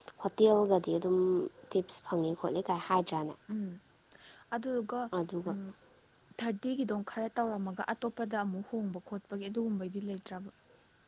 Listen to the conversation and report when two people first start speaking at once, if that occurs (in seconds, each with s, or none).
none